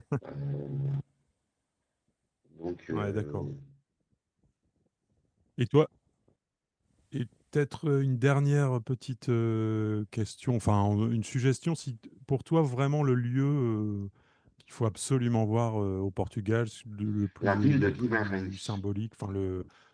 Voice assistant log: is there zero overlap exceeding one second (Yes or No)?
No